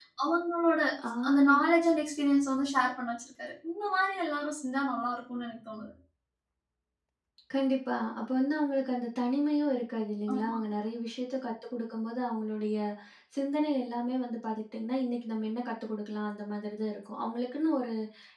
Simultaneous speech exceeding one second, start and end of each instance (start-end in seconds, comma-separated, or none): none